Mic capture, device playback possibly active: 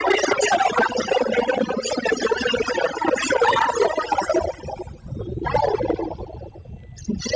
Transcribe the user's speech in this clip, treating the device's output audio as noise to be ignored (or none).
none